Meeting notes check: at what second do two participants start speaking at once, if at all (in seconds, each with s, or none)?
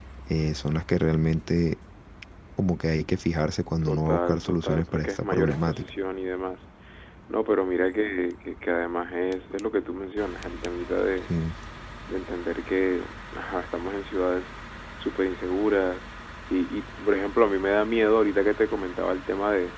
3.8 s